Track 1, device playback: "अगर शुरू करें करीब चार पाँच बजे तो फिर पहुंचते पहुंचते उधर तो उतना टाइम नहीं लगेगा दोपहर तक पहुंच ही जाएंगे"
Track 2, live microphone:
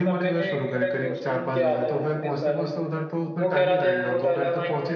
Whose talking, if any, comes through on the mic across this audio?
both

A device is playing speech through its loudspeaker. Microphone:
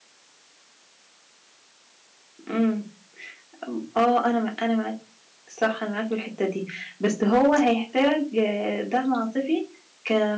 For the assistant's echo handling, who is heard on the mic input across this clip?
user only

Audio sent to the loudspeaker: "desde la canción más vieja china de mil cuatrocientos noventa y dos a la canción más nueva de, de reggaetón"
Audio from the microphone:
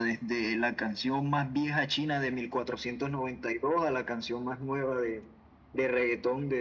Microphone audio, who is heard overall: echo only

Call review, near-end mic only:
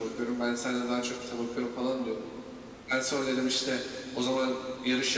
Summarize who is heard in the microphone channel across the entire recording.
echo only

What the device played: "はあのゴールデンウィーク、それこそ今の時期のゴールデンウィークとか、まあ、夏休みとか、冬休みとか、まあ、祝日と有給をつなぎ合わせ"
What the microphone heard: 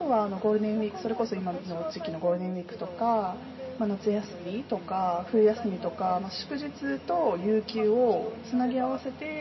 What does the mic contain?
both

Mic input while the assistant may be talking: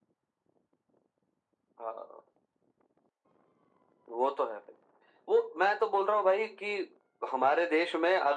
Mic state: echo only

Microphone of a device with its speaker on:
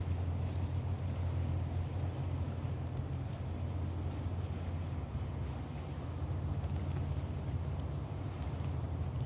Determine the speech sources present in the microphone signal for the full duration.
neither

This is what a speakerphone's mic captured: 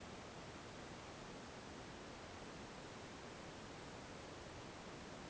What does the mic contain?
neither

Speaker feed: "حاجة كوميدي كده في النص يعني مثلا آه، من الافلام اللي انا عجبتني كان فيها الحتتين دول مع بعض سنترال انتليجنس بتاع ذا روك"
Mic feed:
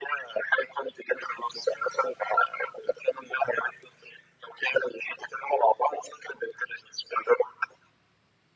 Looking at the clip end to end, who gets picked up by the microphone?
echo only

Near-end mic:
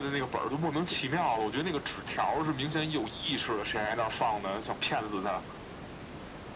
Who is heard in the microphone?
echo only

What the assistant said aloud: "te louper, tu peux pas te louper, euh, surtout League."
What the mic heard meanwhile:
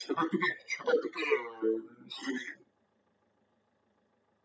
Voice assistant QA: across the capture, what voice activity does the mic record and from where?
echo only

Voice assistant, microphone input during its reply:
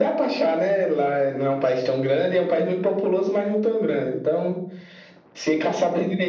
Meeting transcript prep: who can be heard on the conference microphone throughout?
echo only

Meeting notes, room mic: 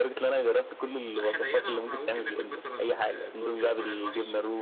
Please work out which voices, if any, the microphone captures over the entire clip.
both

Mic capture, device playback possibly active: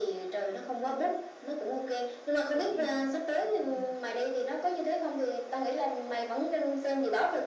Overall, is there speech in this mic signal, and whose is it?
both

